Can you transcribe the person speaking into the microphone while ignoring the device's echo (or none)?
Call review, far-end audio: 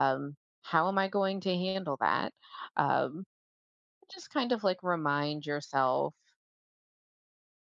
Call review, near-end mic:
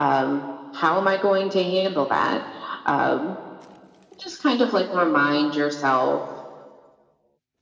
none